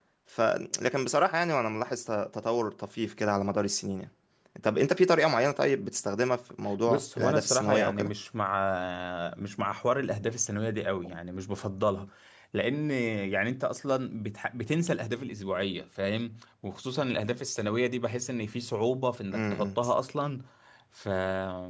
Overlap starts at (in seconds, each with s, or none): 6.9 s